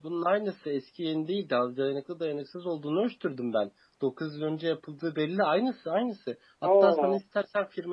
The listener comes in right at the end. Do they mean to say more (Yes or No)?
No